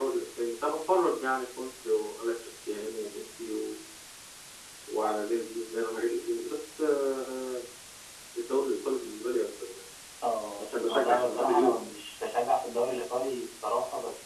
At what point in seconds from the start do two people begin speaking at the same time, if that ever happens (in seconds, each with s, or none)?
10.6 s